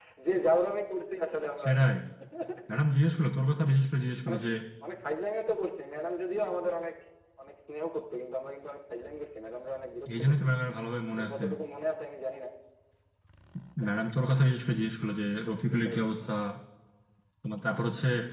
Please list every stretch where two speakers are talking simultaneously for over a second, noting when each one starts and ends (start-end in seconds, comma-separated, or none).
none